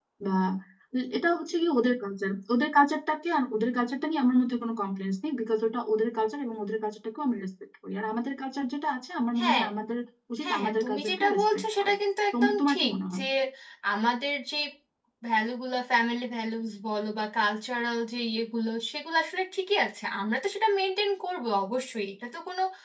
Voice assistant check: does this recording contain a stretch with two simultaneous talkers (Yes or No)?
Yes